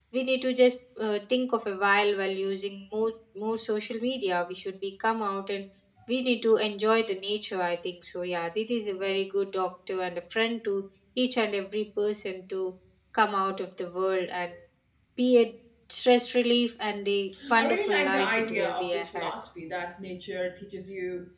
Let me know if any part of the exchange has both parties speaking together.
Yes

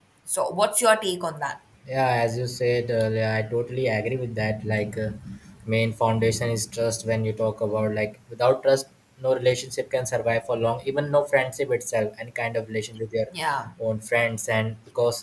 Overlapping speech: No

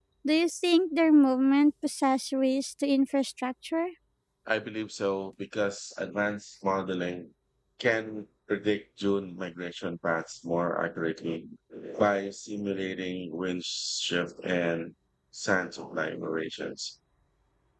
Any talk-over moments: No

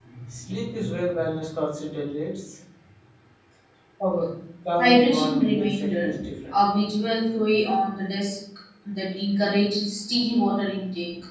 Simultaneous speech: Yes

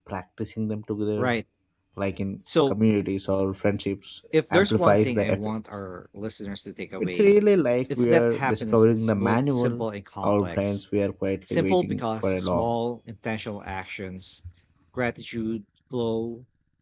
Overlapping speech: Yes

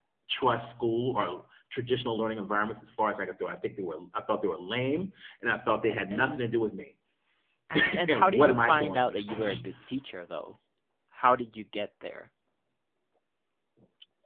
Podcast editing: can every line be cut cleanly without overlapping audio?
No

